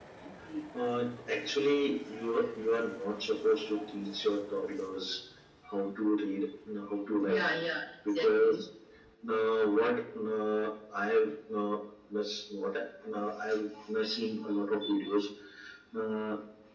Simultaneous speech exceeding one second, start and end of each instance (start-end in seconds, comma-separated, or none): none